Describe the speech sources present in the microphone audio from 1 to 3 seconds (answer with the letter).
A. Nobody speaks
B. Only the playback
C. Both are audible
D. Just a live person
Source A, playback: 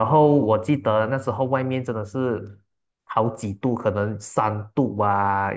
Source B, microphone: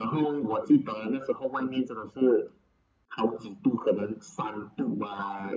B